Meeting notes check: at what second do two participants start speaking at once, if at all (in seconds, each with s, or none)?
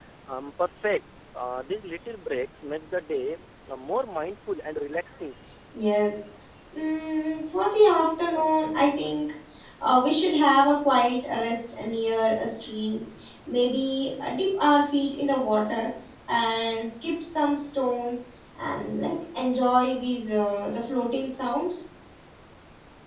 none